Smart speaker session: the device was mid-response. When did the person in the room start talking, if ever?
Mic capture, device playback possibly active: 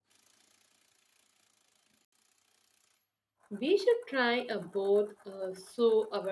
3.5 s

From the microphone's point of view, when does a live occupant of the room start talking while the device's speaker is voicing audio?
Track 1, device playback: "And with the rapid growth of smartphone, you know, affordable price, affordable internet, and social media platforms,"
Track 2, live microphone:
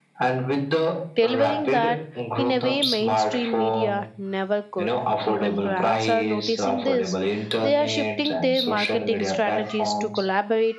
1.1 s

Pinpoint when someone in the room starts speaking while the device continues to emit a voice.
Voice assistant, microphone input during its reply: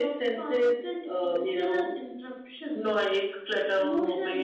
none

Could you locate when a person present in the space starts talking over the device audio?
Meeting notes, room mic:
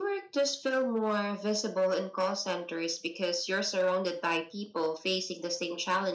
none

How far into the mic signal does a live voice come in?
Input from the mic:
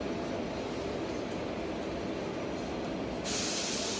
none

